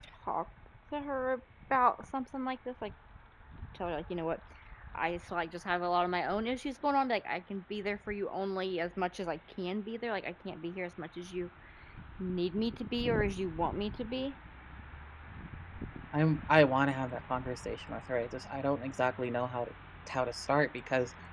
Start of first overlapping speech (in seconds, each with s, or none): none